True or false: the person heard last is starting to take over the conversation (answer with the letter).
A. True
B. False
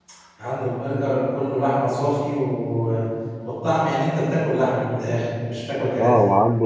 A